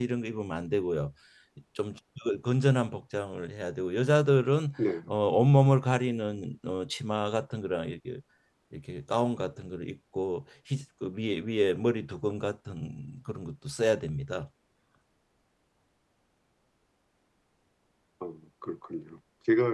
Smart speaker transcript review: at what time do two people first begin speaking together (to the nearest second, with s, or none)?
none